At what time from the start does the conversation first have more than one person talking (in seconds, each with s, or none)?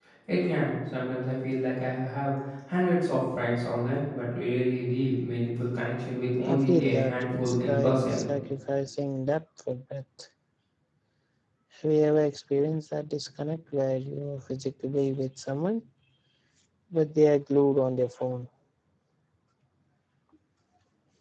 6.5 s